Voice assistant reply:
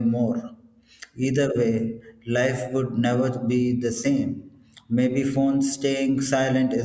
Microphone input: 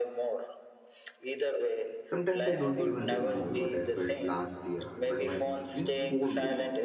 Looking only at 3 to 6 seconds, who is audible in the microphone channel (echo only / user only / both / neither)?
both